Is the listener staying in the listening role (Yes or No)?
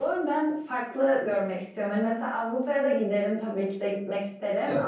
Yes